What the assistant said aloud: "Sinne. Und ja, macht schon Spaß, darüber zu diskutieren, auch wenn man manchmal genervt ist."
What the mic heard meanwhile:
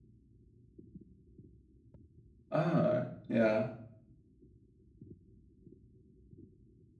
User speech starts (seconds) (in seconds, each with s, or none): 2.5 s